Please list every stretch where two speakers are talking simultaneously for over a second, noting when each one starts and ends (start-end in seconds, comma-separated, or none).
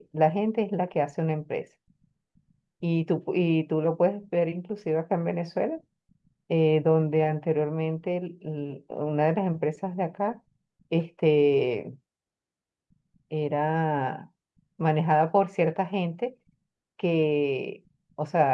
none